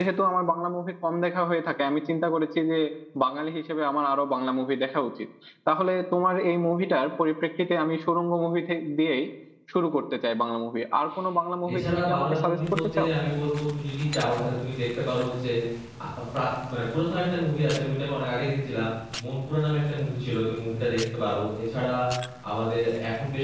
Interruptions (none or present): present